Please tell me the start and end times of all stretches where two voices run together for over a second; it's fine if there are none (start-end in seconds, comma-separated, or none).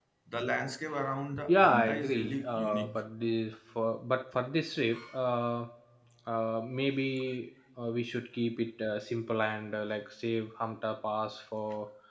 1.4-3.0